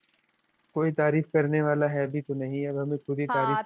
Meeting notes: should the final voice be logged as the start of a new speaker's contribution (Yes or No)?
Yes